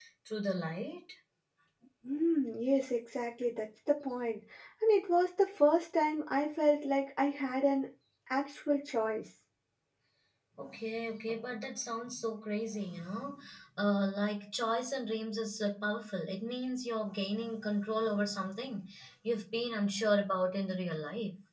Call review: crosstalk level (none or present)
none